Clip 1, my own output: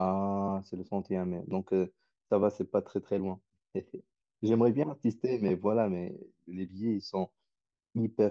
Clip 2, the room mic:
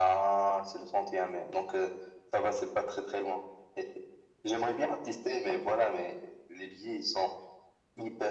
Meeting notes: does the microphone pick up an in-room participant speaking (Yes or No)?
No